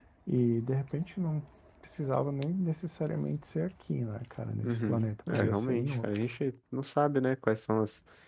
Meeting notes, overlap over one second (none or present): present